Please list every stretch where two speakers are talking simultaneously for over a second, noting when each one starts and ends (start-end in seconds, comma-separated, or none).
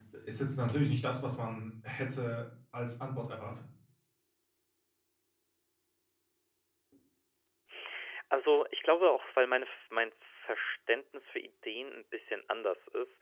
none